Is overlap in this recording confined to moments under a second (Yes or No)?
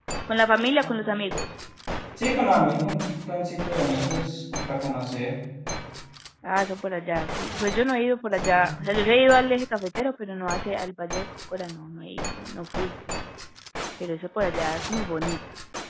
Yes